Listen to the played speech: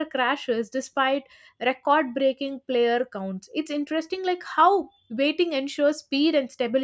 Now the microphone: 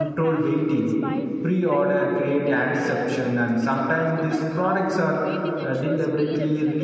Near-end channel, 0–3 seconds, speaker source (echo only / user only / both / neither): both